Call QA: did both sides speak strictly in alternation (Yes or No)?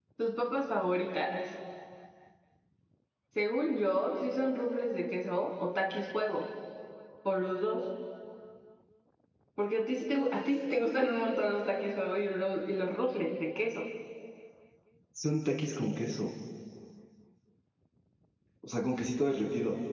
Yes